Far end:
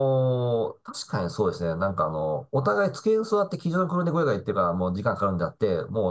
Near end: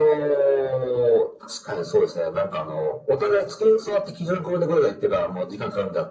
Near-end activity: none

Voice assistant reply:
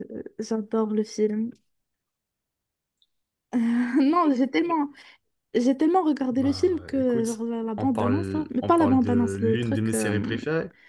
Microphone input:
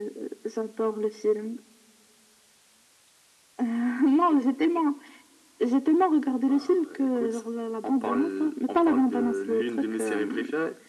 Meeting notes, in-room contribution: none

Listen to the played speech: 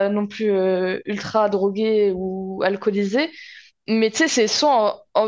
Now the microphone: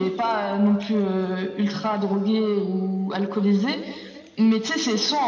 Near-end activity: none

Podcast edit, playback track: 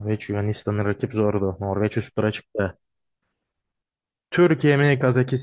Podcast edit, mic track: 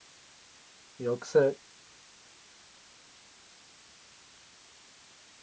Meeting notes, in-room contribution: present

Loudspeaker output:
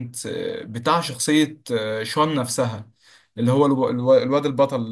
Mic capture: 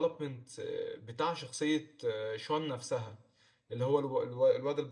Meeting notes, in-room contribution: none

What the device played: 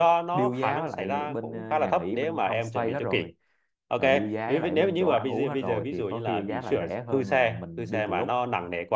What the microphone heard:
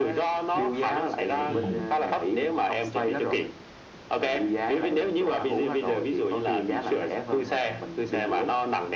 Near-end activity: present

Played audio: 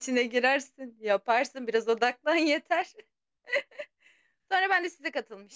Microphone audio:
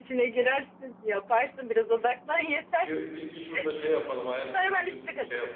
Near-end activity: present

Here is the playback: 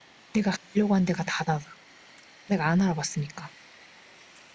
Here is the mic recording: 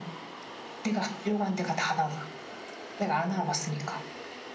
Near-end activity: none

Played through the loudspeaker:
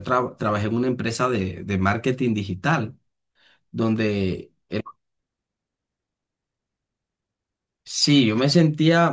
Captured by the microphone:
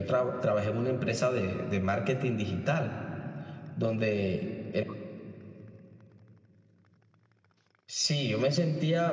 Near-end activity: none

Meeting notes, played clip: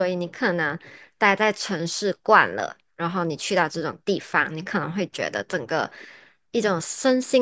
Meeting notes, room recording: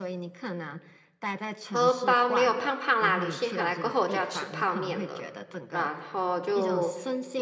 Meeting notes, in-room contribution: present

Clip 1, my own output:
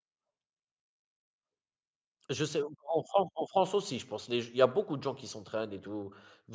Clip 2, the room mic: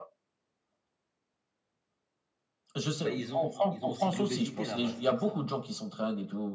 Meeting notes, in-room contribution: present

